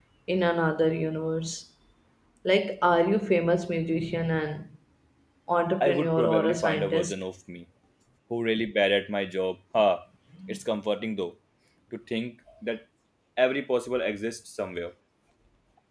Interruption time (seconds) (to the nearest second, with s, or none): 6 s